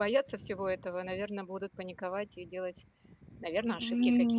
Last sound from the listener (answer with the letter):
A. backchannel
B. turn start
B